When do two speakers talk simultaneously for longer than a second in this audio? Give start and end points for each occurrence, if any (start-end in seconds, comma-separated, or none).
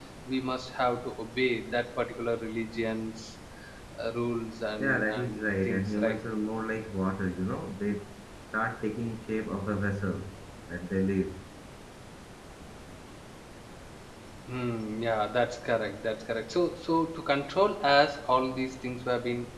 4.8-6.2